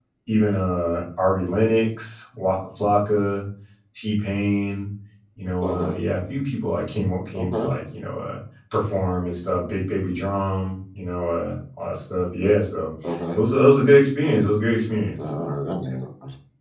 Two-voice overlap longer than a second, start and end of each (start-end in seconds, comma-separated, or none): none